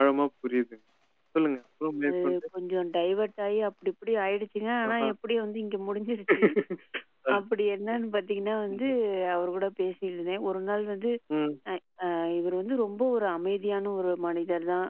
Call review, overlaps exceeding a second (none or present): none